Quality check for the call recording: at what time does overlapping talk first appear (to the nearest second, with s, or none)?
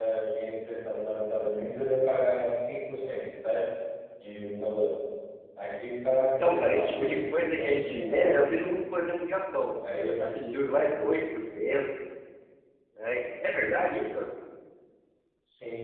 6 s